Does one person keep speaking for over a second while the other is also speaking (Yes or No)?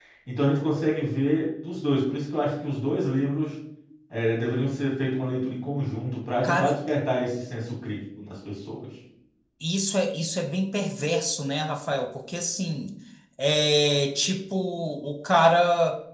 No